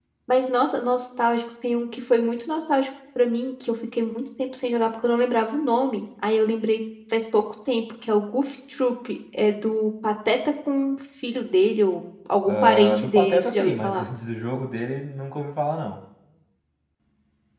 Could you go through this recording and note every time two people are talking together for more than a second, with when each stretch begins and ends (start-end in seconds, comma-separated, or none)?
12.4-14.1